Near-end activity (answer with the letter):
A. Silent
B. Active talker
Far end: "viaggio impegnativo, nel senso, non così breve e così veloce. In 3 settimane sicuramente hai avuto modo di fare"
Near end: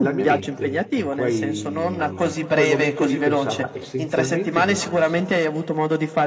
B